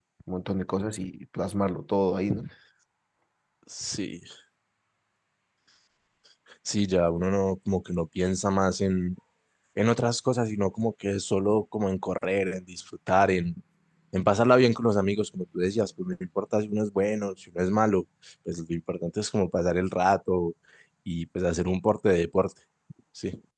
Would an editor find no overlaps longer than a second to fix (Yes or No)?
Yes